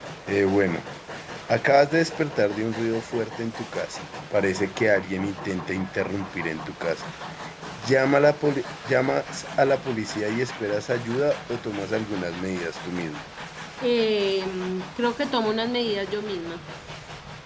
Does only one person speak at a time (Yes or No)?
Yes